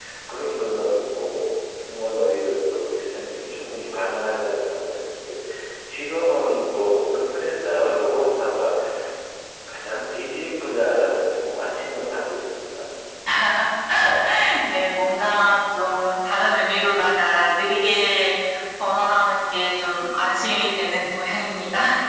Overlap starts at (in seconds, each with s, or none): none